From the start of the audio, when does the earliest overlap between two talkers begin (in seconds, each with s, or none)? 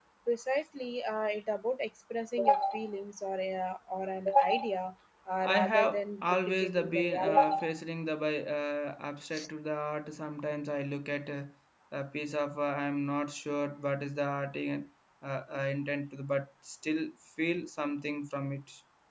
5.4 s